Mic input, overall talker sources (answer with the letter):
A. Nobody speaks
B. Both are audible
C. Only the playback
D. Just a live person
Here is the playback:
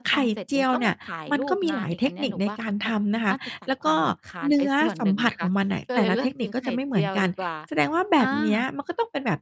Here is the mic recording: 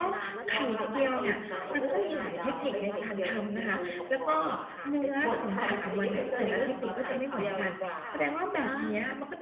B